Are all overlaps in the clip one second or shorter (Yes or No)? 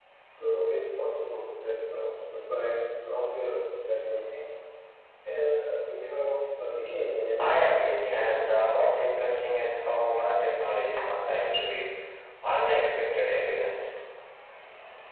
No